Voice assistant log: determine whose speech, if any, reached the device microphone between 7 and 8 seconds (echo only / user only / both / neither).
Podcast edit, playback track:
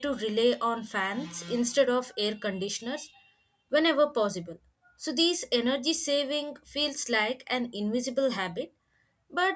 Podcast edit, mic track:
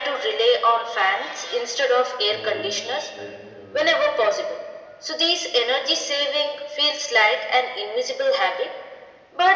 echo only